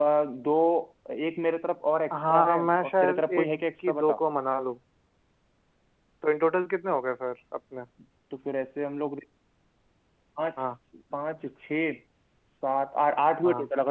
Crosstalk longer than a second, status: present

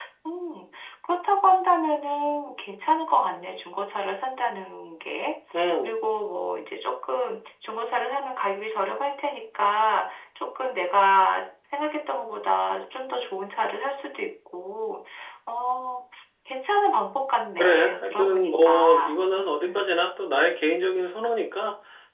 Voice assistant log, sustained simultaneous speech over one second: present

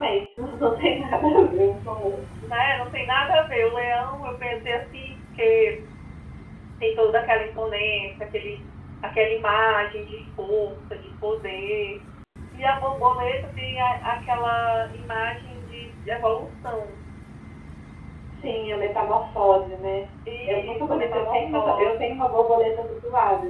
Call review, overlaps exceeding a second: present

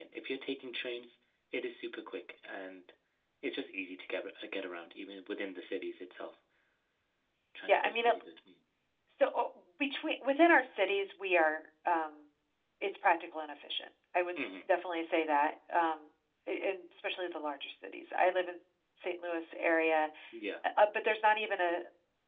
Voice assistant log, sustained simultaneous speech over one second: none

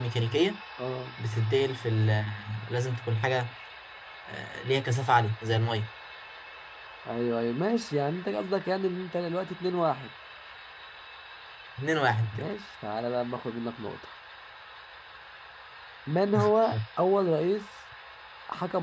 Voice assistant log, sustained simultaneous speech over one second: none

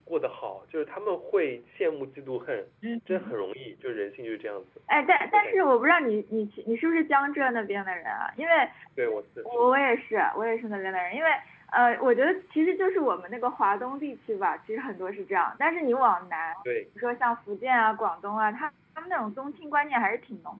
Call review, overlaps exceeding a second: none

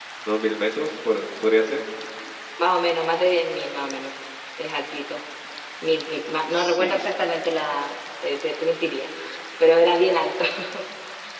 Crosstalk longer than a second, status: none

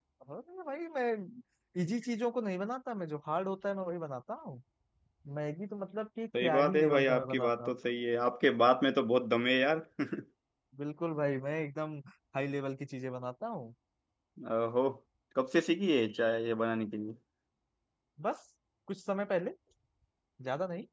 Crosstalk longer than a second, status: present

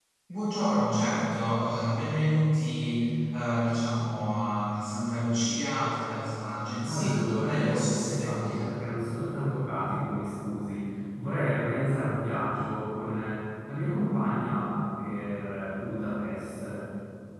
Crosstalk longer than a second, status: present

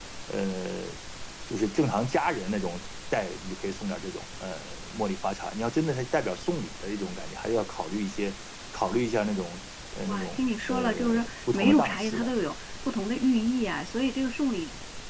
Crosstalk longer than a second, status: present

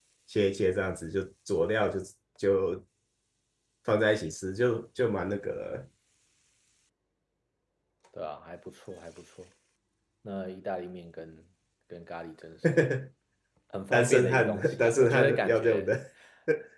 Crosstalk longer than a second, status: present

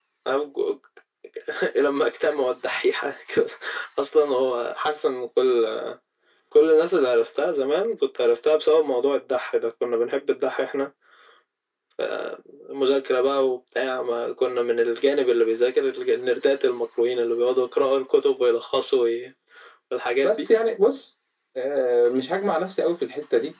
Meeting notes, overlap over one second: none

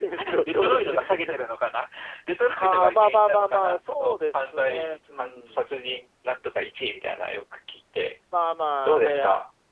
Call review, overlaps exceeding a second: present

